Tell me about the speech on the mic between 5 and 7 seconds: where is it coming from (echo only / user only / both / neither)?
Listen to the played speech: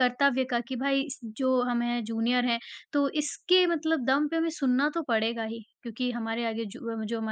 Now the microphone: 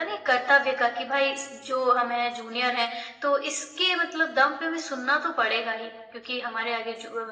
echo only